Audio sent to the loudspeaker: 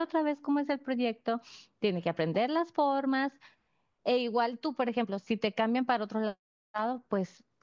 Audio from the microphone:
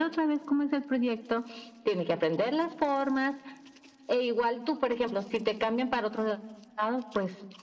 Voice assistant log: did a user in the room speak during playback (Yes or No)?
No